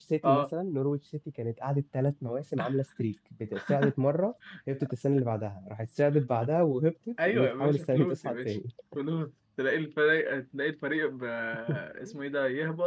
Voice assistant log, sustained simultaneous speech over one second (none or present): present